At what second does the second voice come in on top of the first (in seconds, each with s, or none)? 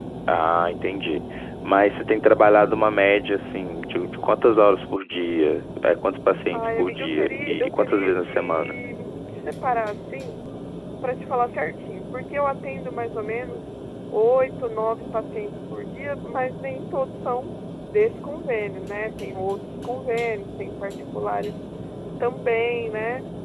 6.5 s